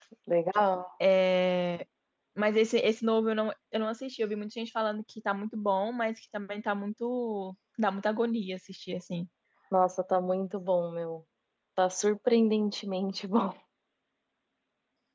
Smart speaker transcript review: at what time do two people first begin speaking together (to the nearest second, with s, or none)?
none